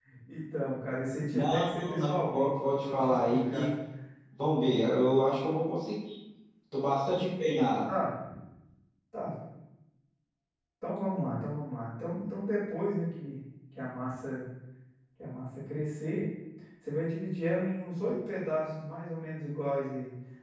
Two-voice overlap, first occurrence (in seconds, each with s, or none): 1.3 s